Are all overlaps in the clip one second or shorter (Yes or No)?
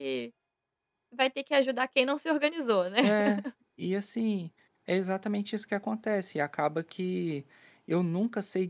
Yes